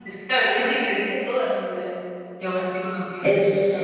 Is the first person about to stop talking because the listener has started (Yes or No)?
Yes